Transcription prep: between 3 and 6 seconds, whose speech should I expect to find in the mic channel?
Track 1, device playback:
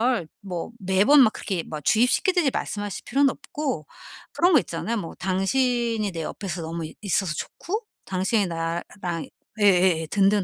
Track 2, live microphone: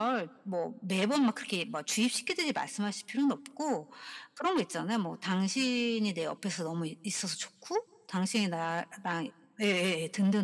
echo only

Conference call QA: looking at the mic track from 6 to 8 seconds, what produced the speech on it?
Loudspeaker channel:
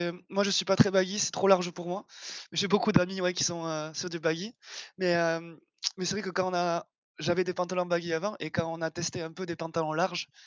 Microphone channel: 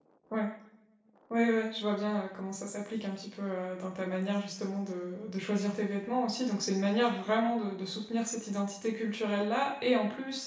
user only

